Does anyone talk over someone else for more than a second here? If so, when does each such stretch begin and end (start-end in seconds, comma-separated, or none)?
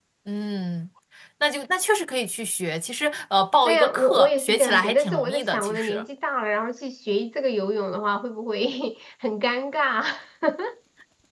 3.6-6.0